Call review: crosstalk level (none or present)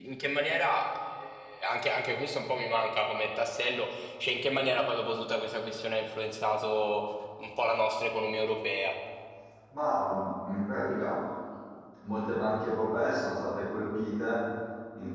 none